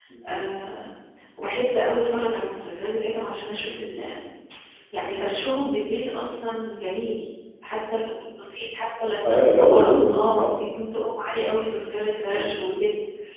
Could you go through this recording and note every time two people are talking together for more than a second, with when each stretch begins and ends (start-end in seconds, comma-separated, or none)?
9.2-10.6